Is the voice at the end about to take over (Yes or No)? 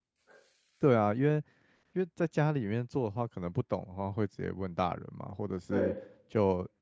No